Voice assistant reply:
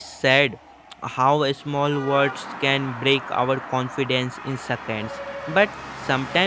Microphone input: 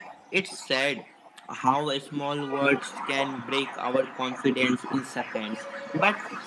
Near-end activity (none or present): none